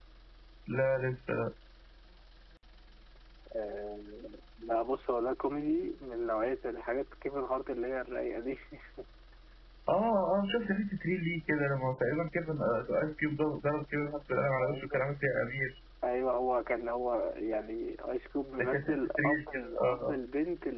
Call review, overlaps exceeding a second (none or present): present